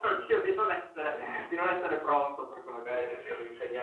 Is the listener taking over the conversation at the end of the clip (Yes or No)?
Yes